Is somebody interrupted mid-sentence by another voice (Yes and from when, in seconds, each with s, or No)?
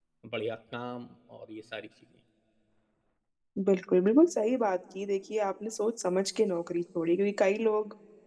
No